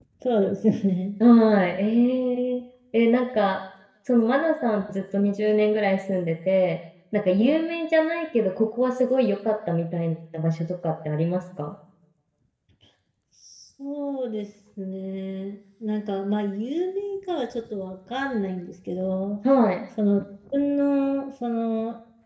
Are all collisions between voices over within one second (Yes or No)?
Yes